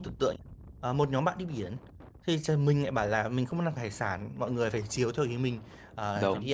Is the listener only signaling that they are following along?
Yes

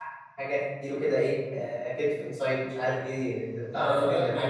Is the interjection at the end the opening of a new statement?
Yes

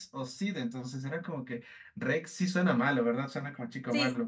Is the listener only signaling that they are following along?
No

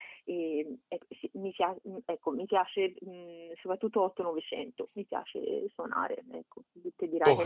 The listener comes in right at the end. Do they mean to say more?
No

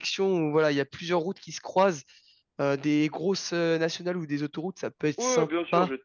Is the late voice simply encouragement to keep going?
No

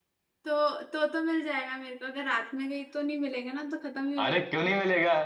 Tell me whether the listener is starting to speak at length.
Yes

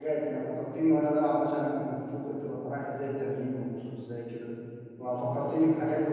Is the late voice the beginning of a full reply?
No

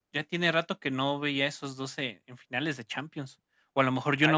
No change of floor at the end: Yes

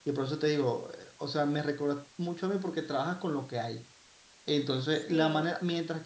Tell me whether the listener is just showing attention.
Yes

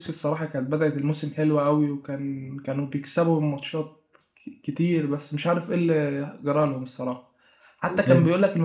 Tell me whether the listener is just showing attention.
Yes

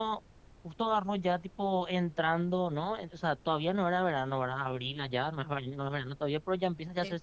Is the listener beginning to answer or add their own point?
No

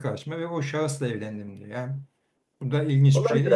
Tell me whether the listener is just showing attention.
No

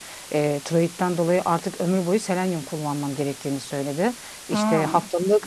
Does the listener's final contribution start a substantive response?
No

